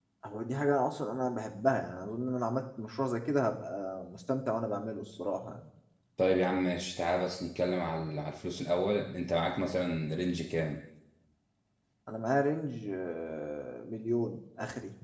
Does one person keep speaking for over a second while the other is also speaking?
No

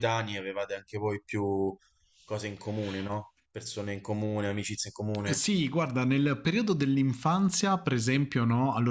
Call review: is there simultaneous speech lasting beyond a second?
No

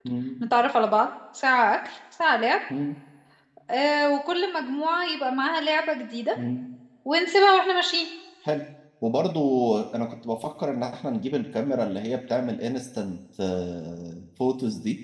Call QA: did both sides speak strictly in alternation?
Yes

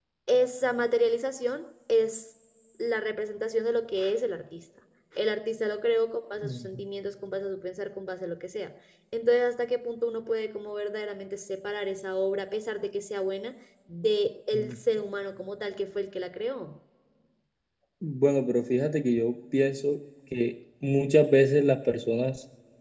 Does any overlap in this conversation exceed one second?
No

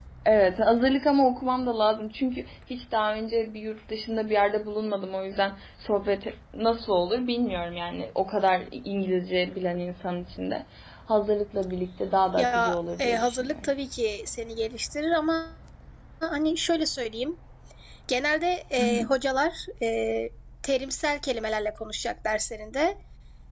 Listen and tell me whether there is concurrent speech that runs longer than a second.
Yes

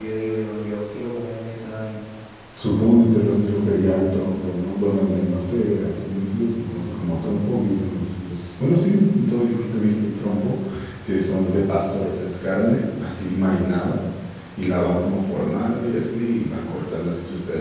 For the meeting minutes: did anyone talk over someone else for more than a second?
No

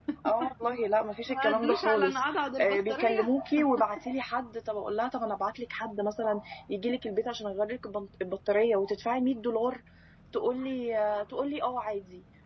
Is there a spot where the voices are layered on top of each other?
Yes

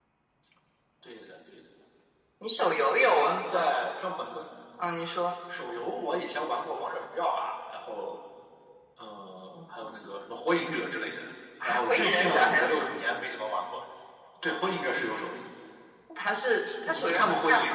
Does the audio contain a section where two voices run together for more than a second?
Yes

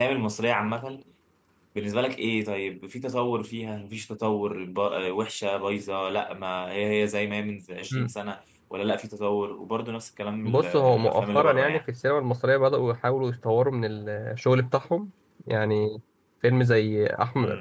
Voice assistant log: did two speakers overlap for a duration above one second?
Yes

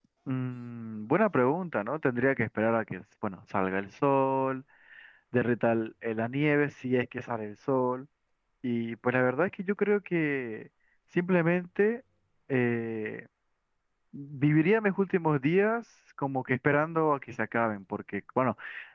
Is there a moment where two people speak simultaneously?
No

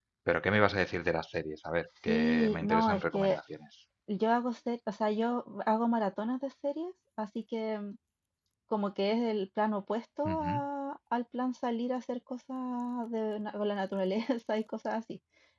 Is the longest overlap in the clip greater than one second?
Yes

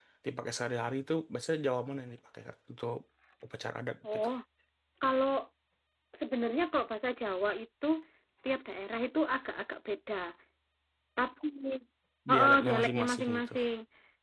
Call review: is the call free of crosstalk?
No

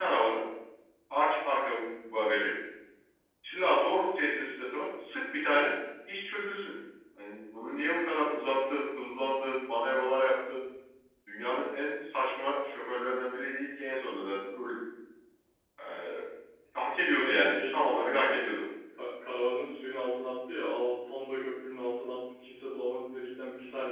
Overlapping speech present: Yes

